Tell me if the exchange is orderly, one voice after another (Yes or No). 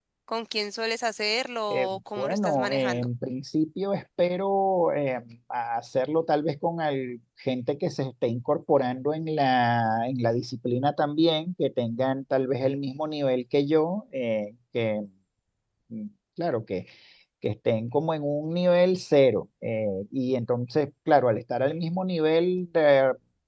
No